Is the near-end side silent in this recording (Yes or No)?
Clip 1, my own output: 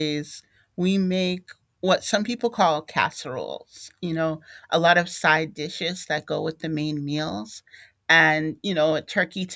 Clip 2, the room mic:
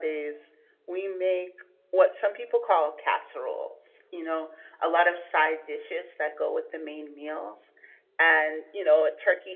Yes